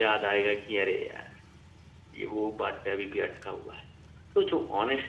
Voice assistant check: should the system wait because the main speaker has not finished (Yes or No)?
Yes